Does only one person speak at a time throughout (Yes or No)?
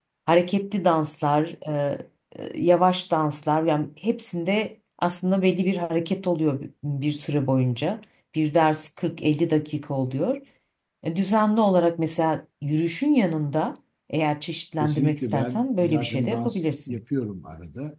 No